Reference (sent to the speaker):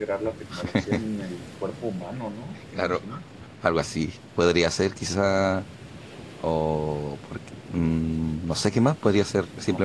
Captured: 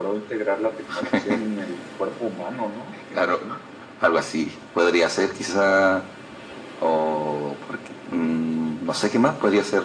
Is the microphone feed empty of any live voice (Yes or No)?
Yes